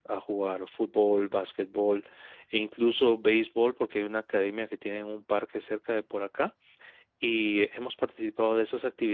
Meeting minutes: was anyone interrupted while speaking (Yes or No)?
No